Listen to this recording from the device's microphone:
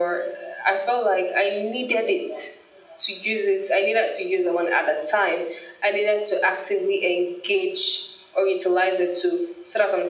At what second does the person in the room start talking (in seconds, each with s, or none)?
none